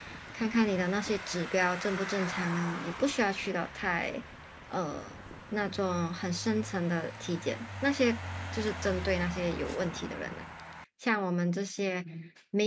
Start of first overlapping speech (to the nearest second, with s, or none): none